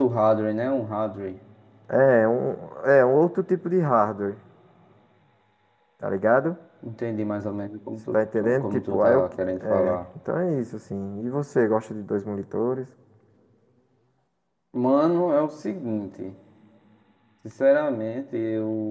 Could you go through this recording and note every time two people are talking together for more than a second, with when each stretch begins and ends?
8.1-10.0

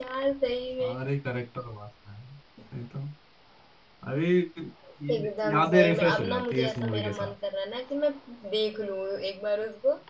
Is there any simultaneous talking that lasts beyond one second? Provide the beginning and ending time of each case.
5.1-7.3

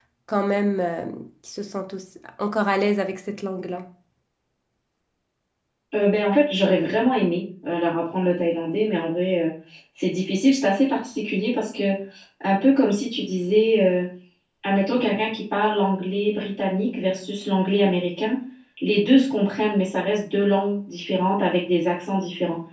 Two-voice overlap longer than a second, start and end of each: none

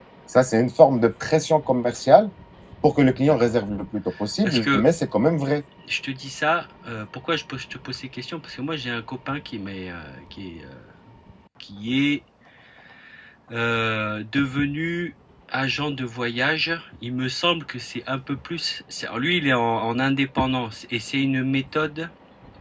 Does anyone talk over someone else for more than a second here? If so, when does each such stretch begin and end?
none

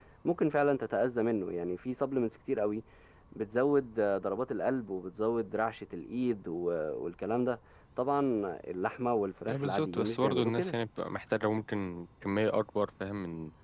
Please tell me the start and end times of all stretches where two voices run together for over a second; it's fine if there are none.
9.5-10.7

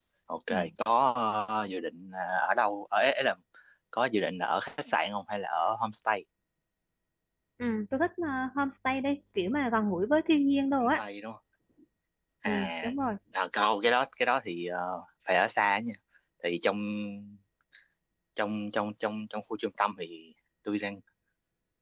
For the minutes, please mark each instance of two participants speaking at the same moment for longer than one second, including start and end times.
none

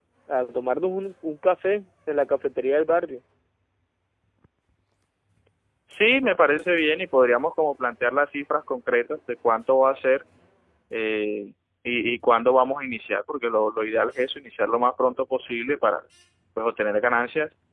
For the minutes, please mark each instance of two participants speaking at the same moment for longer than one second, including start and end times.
none

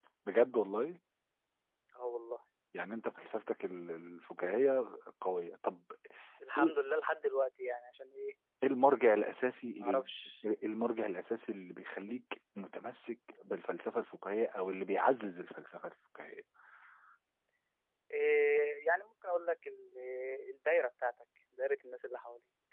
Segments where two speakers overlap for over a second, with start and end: none

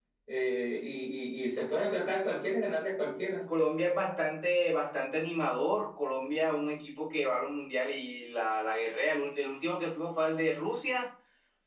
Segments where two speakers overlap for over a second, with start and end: none

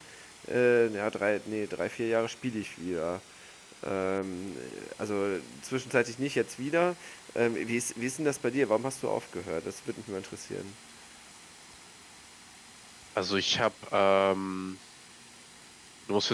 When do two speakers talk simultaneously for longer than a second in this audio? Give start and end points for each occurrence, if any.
none

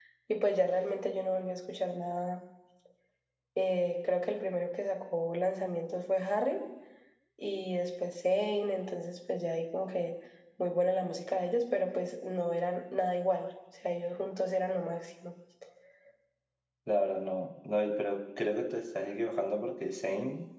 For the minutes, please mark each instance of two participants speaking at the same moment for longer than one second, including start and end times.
none

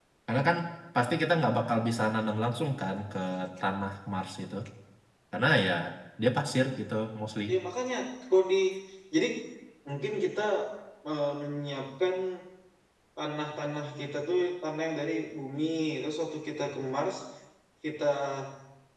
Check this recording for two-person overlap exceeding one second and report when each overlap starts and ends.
none

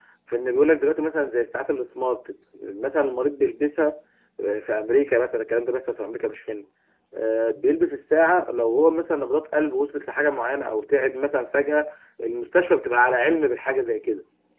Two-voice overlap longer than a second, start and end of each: none

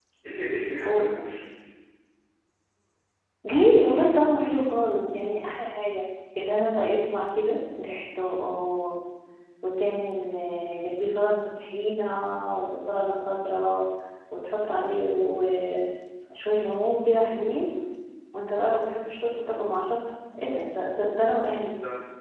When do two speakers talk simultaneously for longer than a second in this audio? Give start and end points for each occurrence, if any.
none

